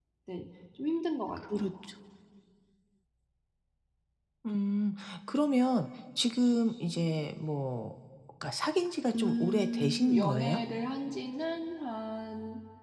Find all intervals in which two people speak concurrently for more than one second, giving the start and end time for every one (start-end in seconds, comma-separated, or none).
9.2-10.6